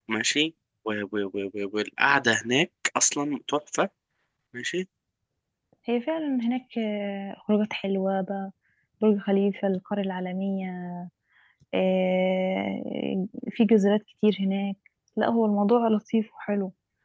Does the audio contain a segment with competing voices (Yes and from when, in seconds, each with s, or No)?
No